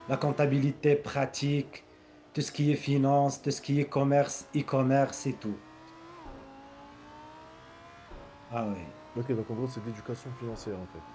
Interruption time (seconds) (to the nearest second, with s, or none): none